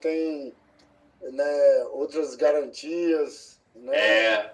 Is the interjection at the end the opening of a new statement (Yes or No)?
Yes